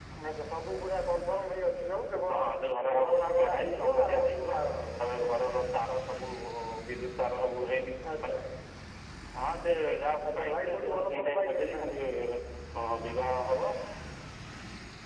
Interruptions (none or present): present